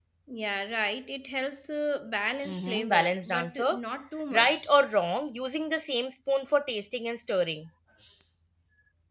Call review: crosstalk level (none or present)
present